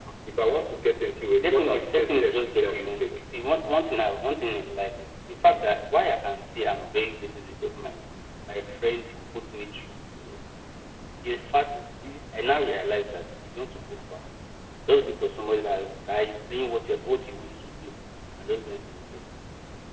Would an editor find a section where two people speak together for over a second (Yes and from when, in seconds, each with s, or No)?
Yes, from 1.4 s